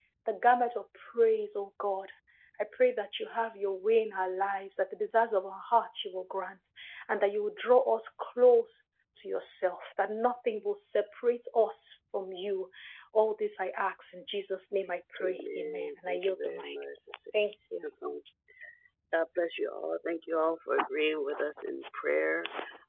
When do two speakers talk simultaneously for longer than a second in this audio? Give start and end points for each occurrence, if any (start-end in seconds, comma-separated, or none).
15.2-16.8